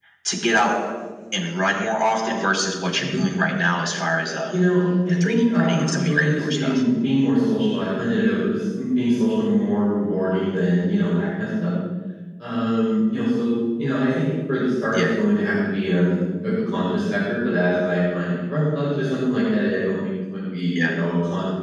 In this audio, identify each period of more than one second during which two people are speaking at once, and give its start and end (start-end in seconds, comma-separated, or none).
5.2-6.7